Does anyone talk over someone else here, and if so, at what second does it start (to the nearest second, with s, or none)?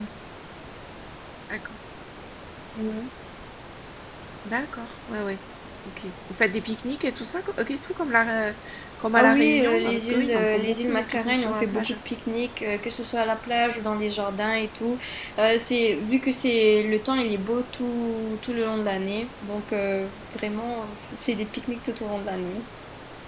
9 s